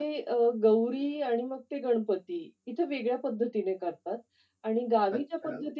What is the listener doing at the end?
taking over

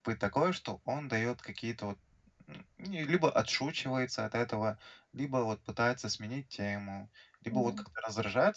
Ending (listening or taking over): listening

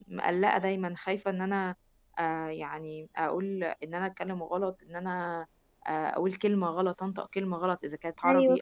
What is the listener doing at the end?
listening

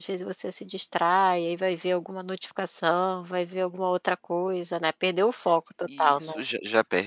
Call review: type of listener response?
taking over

